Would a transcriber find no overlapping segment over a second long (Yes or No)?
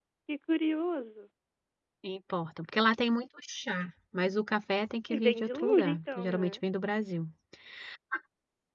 No